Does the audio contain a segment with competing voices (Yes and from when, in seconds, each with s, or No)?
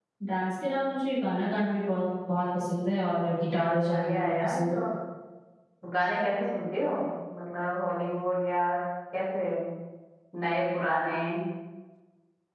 Yes, from 3.4 s